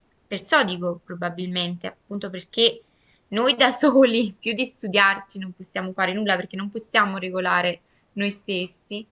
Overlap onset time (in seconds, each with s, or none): none